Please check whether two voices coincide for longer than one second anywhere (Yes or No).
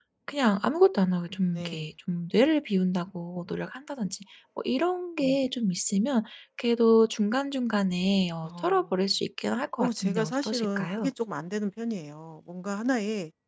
Yes